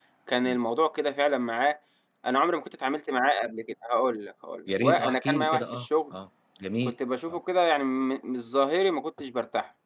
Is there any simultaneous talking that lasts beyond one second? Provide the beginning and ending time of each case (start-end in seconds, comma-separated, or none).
4.8-6.1